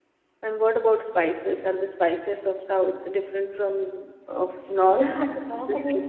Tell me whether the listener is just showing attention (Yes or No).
No